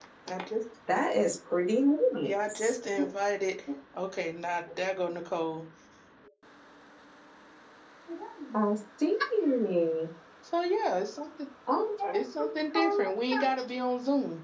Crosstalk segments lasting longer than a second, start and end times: none

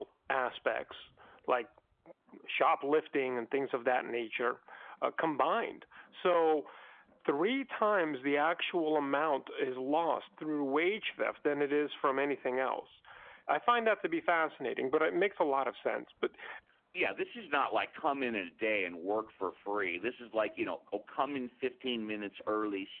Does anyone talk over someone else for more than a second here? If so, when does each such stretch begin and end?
none

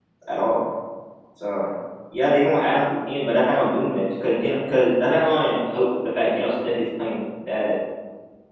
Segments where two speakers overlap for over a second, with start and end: none

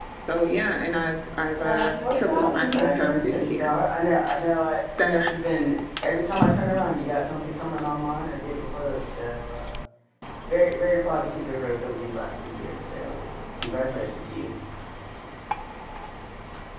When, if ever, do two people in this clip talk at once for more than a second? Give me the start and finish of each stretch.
1.5-3.7

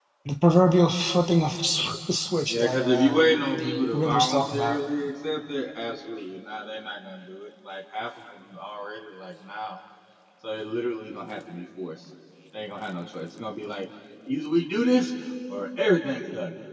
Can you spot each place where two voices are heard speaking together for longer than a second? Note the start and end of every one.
2.5-4.8

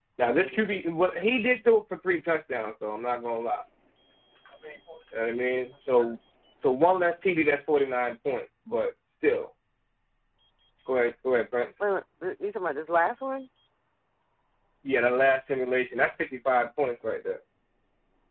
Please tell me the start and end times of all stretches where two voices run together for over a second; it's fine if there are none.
none

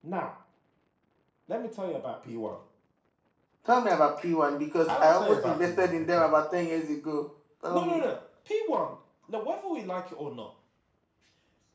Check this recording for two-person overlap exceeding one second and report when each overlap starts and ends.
4.9-6.3

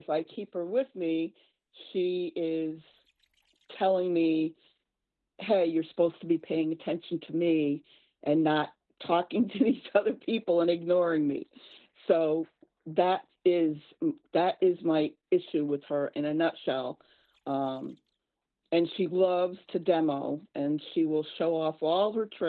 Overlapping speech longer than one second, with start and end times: none

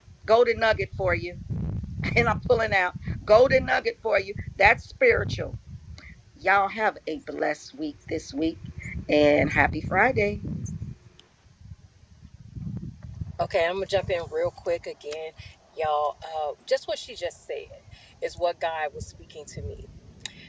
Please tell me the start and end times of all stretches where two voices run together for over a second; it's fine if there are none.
none

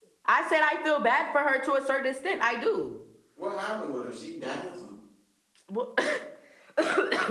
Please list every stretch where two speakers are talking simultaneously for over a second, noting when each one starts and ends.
none

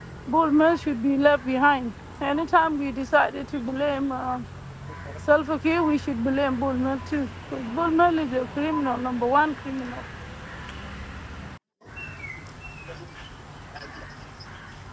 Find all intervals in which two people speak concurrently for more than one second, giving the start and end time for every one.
none

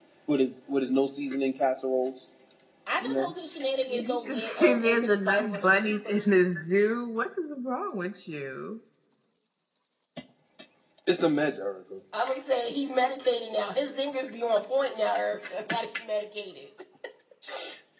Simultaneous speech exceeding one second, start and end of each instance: 3.9-6.2

